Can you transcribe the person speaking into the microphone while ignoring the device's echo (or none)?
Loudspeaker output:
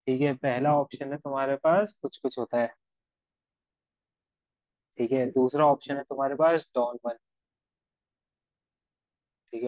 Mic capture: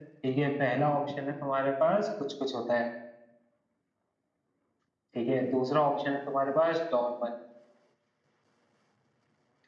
none